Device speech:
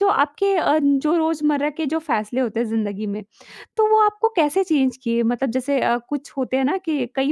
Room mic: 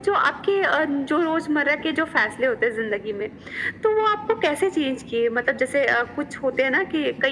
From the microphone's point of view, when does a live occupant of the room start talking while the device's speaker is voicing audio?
none

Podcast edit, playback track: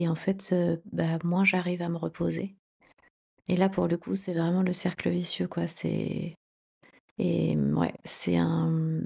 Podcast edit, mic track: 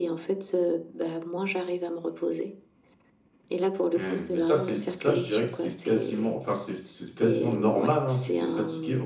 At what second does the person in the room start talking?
4 s

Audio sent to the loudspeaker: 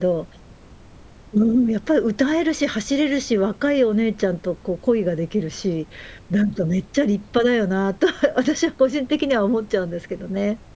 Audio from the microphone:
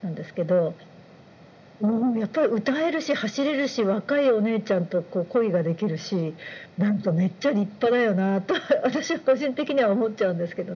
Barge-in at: none

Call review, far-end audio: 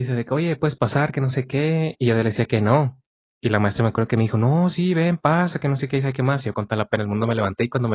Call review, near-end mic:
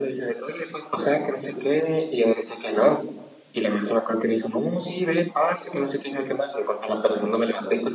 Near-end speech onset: none

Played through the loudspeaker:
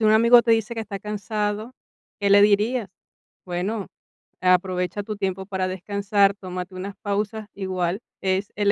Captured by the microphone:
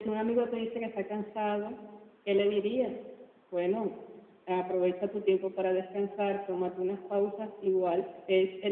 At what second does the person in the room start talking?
none

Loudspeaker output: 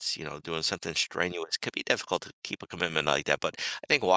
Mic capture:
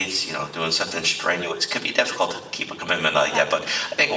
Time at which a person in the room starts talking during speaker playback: 3 s

